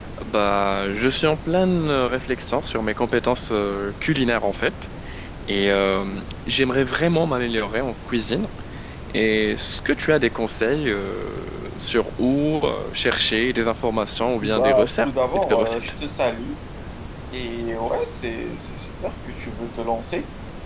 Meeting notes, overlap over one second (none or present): present